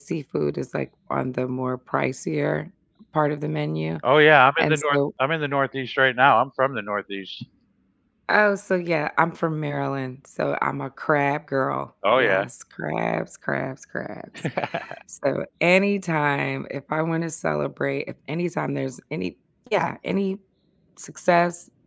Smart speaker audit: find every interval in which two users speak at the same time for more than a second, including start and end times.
none

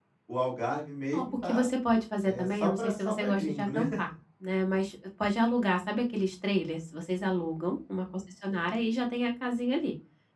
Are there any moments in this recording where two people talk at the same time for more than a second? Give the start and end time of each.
2.2-3.8

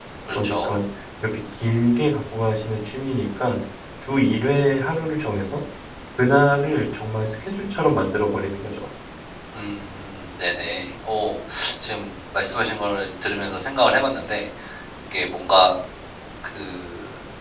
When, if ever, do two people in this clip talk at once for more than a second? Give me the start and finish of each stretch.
none

